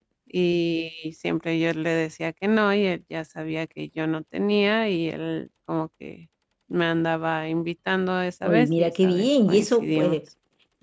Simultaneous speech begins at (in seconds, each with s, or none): 8.4 s